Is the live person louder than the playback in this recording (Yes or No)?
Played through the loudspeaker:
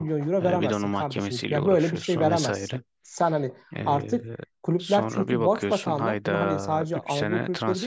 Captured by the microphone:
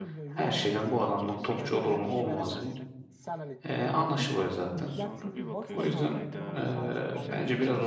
Yes